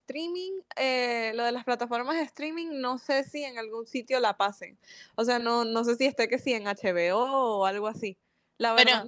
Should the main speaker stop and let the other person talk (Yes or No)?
No